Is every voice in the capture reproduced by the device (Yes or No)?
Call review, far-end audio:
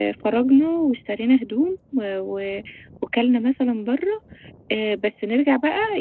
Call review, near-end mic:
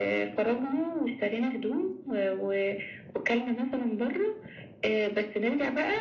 Yes